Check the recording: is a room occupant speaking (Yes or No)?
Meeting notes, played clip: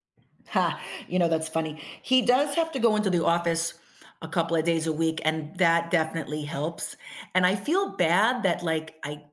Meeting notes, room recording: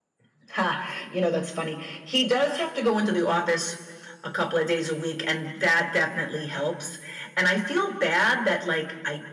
No